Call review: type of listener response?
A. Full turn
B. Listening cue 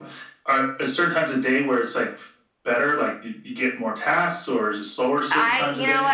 A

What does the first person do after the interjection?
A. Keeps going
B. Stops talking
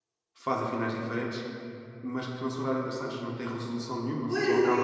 B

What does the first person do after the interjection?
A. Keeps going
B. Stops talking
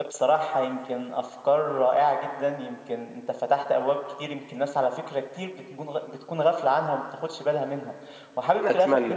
A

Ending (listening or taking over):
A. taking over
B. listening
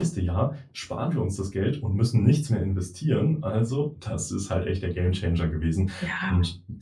A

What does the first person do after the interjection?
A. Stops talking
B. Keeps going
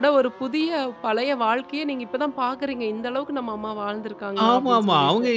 A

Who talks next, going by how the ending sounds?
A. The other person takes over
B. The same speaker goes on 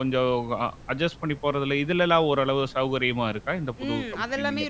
A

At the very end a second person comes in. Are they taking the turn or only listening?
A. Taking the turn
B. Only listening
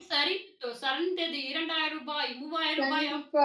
A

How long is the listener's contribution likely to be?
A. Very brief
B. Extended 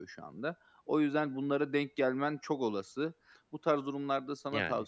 A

